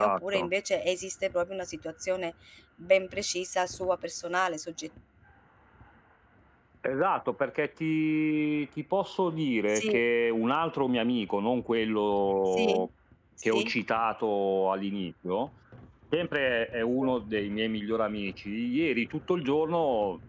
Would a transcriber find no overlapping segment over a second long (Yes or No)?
Yes